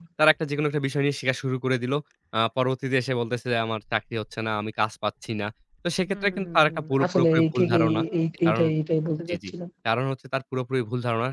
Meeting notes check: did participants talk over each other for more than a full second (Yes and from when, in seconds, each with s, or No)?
Yes, from 6.1 s